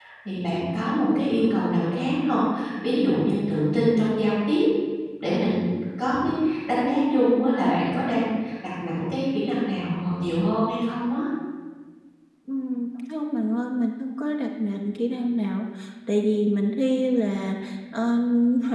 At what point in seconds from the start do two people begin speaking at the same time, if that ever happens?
none

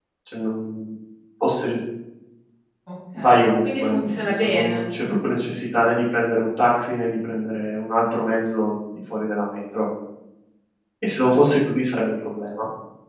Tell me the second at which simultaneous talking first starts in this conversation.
3.2 s

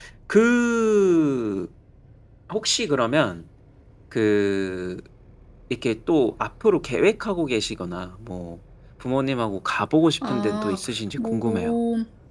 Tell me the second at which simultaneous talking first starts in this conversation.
10.2 s

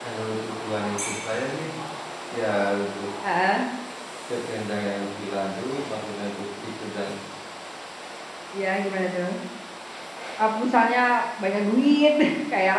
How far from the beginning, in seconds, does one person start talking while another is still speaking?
none

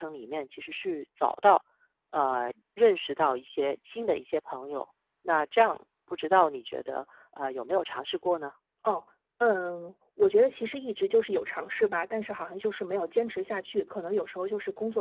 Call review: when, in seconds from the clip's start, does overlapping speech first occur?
none

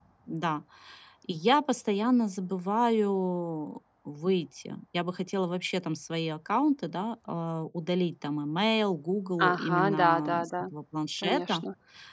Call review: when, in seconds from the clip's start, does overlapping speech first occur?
9.4 s

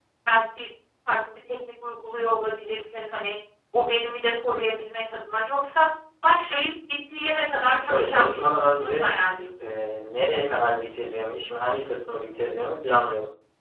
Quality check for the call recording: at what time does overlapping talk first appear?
7.6 s

